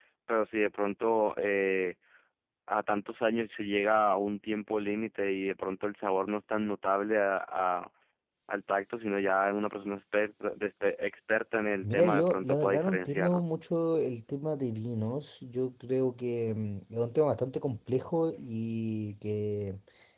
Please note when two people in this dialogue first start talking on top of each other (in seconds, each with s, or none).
11.8 s